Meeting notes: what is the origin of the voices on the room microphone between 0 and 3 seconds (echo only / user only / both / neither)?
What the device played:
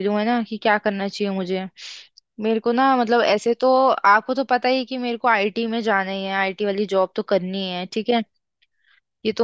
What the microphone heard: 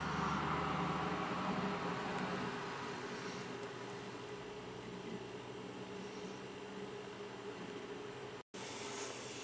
neither